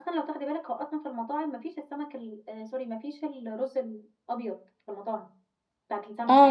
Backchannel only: No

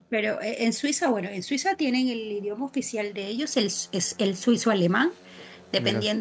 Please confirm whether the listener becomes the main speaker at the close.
No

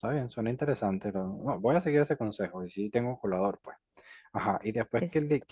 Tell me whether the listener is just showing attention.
Yes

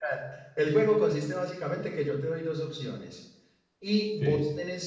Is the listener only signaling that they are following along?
Yes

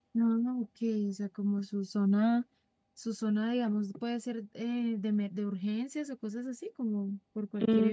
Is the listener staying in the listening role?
No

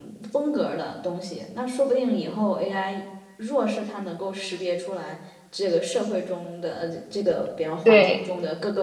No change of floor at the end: Yes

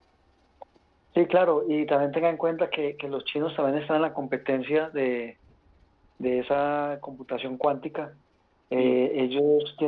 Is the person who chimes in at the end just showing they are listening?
Yes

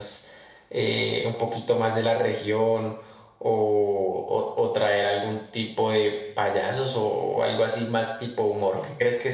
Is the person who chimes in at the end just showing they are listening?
Yes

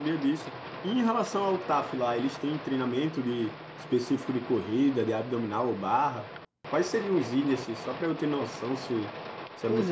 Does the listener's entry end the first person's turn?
Yes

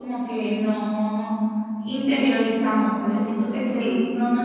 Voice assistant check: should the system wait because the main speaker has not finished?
Yes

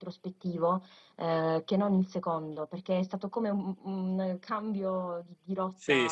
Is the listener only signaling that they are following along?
No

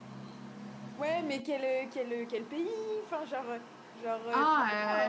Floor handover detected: Yes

